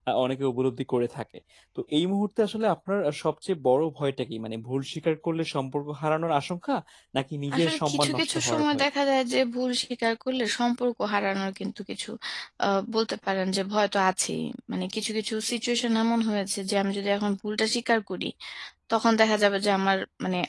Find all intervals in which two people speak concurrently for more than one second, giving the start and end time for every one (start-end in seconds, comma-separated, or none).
7.6-8.8